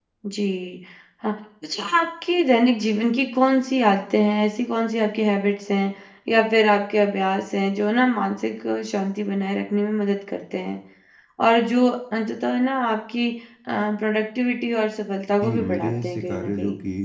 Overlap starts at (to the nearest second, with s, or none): 15 s